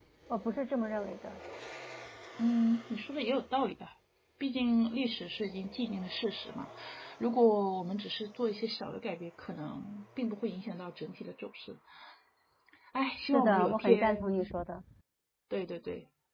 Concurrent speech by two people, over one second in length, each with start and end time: 13.2-14.5

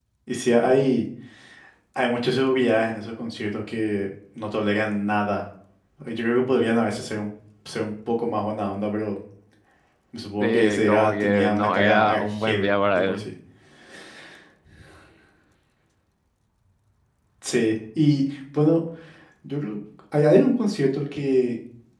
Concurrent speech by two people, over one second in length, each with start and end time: 10.4-13.3

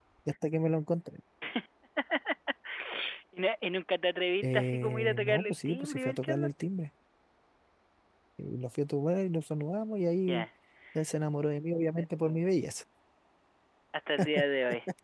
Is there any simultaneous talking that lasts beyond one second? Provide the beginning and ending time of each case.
4.4-6.5

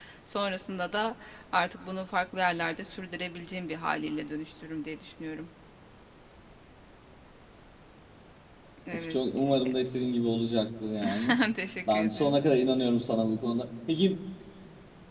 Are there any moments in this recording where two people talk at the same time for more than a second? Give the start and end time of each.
none

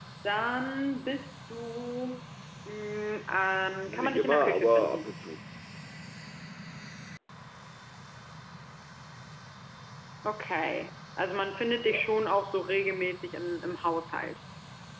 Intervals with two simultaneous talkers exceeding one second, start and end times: 3.8-5.0

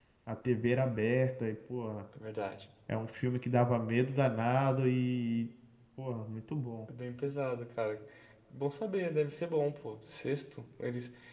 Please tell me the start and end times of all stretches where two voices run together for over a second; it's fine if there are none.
none

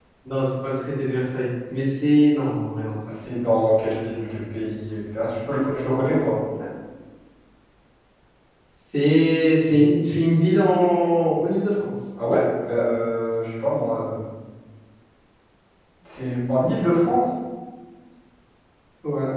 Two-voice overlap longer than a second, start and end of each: none

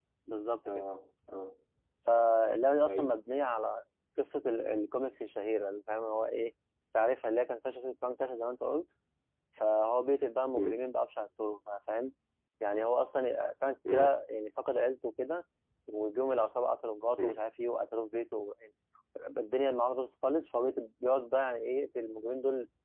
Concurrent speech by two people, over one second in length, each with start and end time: none

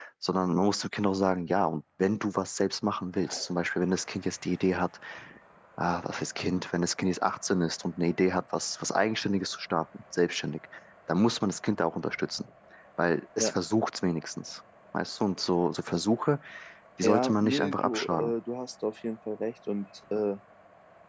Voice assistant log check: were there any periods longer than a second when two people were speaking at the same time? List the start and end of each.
17.0-18.3

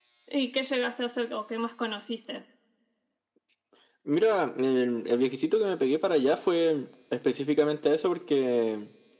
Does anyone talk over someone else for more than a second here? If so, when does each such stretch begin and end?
none

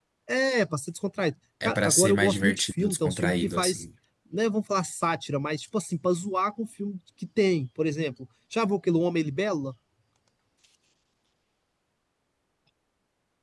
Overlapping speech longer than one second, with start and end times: 1.6-3.8

